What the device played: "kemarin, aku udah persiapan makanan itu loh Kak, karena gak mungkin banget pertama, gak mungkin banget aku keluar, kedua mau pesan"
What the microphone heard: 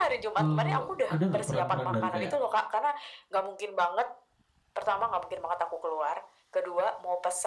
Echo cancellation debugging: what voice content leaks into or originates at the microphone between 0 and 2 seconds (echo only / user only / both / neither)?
both